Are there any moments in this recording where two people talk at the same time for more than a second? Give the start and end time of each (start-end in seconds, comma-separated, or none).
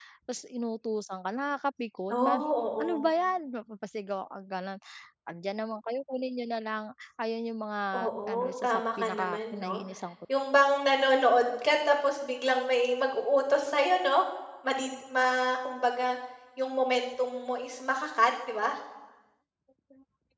7.9-9.8